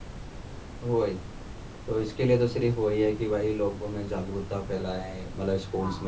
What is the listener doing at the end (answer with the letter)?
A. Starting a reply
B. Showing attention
B